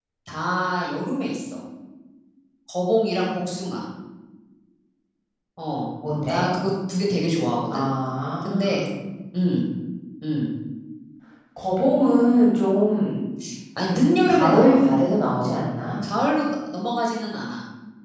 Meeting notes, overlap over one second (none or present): none